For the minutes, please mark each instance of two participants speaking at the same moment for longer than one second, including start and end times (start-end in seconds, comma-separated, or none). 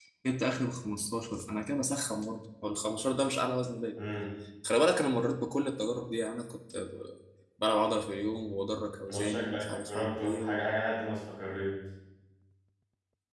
9.1-10.6